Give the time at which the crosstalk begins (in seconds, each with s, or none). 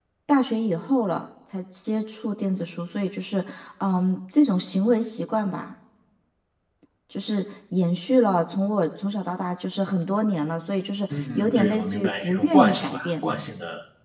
11.1 s